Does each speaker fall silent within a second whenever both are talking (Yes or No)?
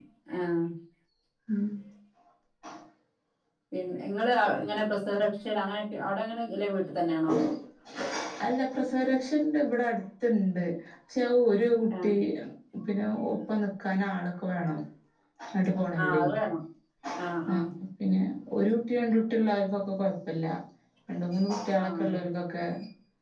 Yes